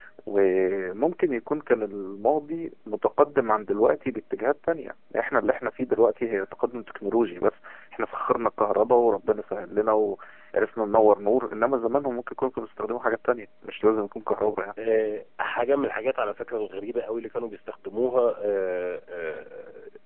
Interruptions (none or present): none